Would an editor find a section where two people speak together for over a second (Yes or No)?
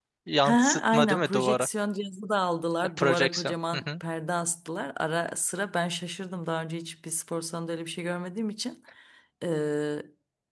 Yes